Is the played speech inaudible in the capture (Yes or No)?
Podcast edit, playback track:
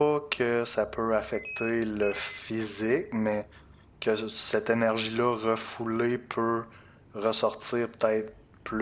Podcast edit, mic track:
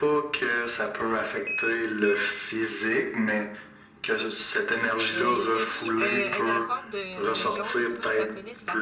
No